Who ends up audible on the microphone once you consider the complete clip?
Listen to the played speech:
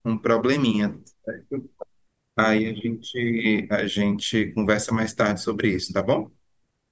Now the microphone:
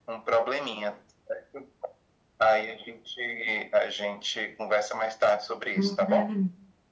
both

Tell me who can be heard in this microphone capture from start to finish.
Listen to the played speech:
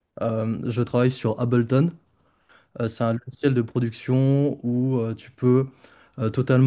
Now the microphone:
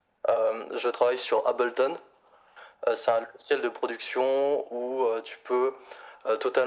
echo only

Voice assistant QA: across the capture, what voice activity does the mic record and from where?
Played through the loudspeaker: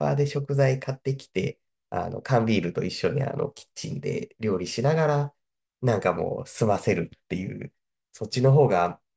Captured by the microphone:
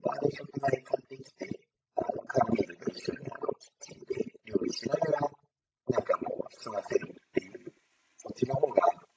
echo only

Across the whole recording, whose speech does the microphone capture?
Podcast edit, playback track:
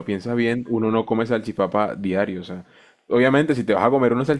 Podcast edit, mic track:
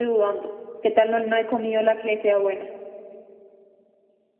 user only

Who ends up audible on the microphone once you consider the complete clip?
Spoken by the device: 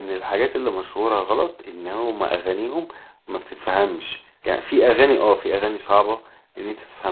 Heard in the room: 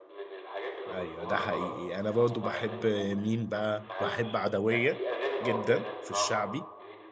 both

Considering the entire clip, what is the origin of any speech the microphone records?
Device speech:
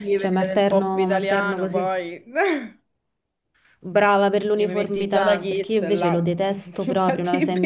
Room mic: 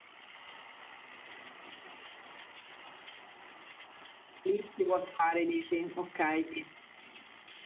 user only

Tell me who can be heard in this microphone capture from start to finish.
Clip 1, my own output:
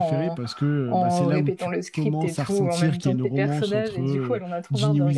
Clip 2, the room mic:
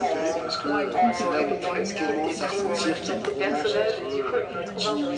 both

